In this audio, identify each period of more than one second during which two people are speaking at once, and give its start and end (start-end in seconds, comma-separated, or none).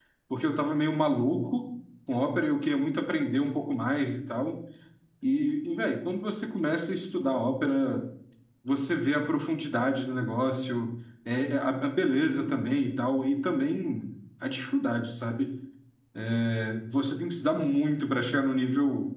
none